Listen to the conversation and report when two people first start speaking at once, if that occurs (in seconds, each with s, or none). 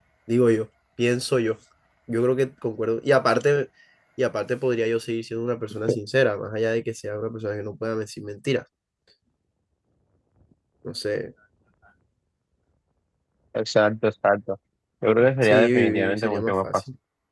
15.4 s